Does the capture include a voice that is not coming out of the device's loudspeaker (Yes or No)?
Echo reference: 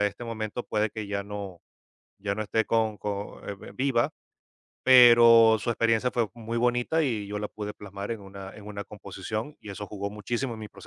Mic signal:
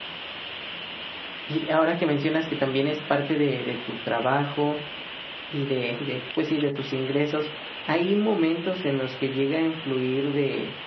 Yes